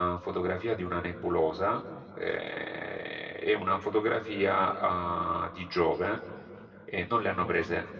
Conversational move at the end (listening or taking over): listening